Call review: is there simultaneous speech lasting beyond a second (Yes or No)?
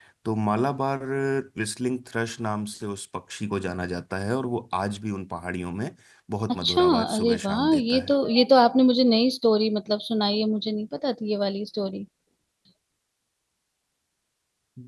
Yes